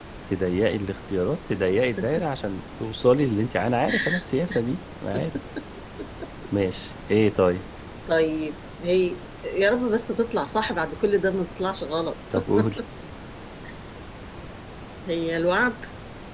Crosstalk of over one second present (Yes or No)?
No